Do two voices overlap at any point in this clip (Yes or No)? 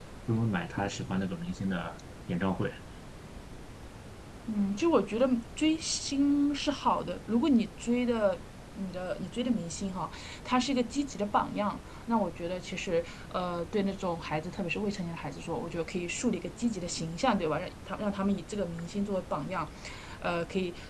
No